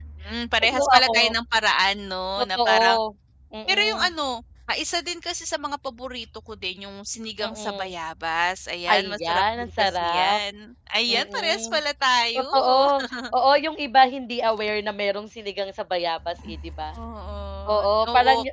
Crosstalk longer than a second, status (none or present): present